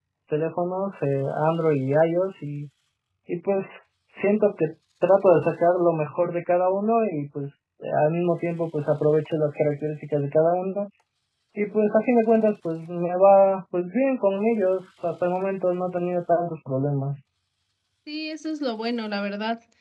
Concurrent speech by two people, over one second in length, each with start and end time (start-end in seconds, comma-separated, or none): none